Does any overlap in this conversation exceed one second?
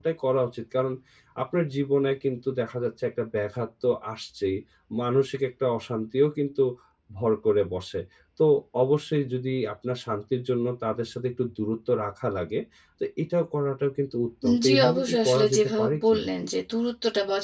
Yes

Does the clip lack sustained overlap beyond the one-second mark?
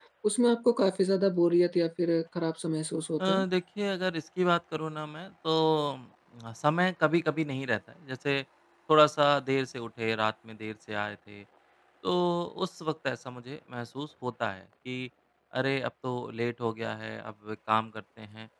Yes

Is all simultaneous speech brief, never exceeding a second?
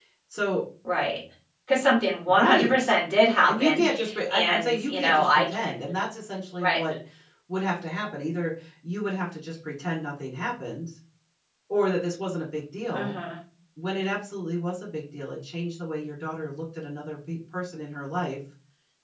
No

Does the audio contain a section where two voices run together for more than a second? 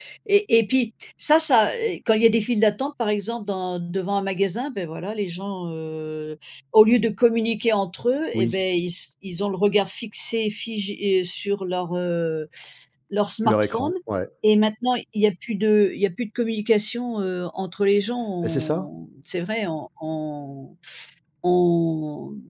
No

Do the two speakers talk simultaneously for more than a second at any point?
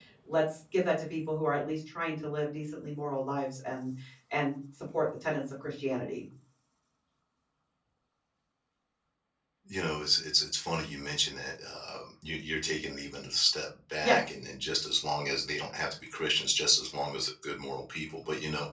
No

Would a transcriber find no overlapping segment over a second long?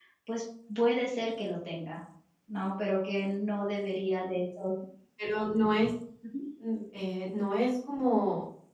Yes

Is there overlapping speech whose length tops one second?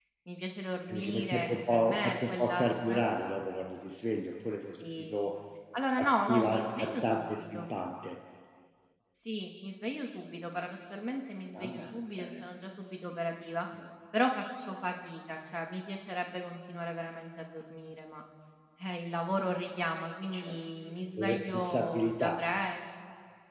Yes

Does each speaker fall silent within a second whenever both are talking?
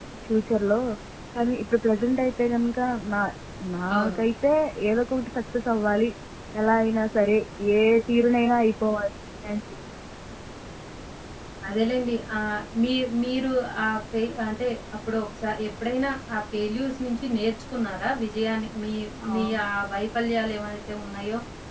Yes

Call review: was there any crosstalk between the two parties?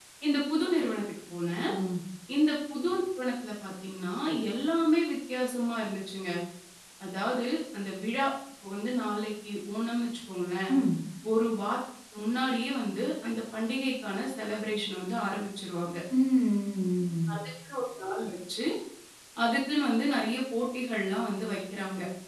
No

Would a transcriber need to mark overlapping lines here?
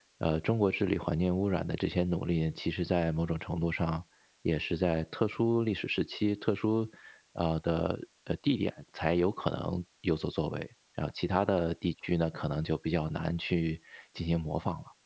No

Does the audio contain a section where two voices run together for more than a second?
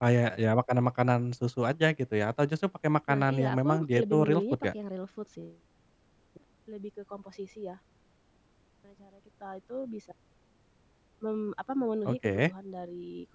Yes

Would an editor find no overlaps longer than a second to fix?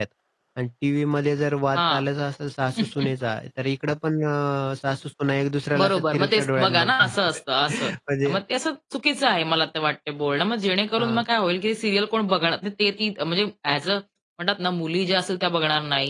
No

